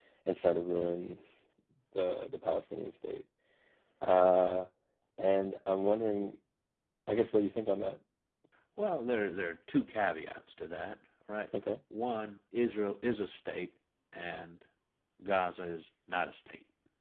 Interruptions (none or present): none